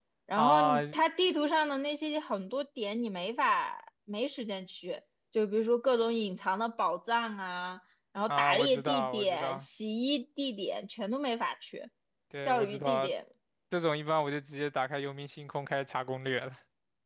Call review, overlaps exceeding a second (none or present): present